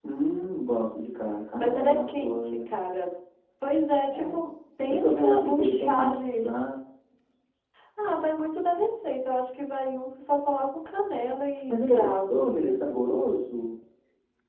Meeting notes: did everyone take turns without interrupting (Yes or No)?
No